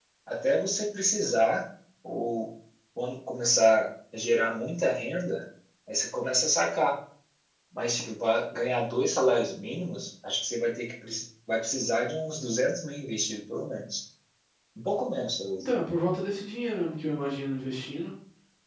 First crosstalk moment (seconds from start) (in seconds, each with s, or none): none